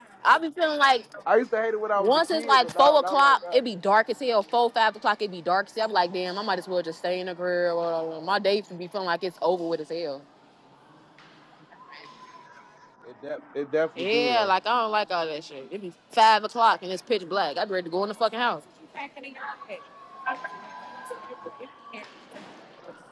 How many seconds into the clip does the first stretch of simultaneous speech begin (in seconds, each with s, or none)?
2.0 s